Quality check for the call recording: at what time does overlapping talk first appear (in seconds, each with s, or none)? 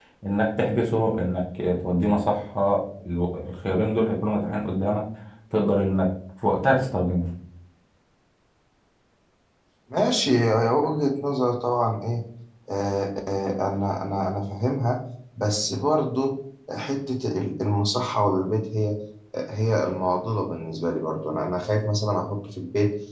none